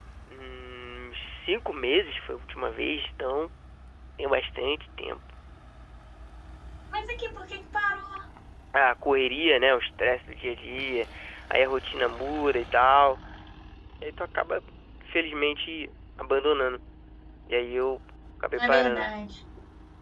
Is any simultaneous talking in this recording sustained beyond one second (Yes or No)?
No